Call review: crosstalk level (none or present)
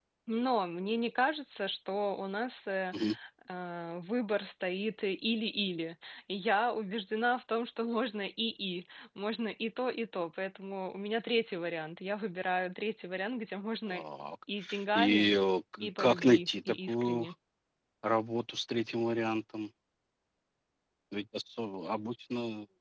present